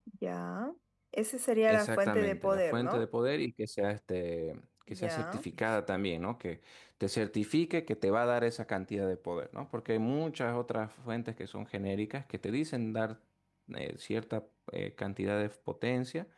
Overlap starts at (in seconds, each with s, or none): 1.6 s